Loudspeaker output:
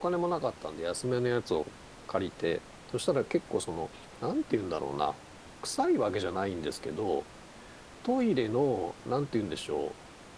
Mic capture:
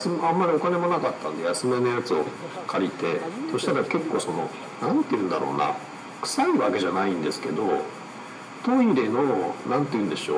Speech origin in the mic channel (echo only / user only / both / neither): both